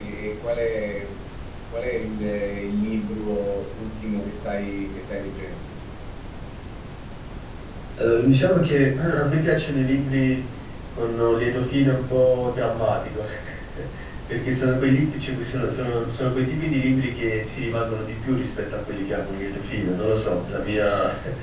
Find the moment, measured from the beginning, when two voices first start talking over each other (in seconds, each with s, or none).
none